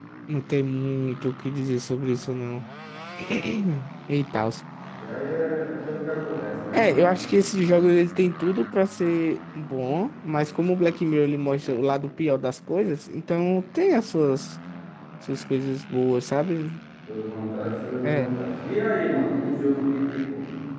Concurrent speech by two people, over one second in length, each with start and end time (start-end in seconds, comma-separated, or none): none